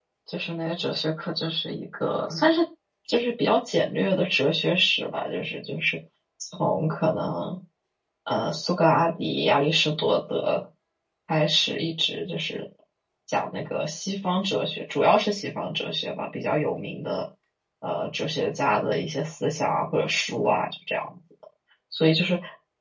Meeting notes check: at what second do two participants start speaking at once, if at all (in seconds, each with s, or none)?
none